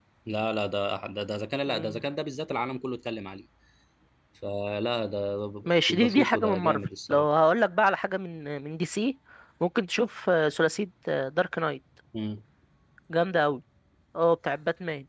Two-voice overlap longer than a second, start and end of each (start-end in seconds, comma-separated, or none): 5.7-7.3